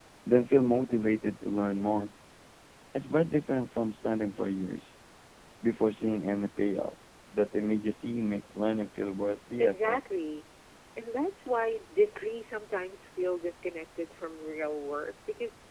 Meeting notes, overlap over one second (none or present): none